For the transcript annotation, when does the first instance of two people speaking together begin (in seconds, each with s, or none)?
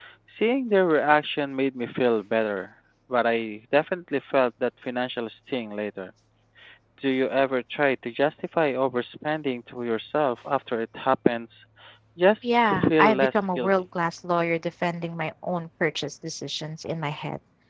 12.4 s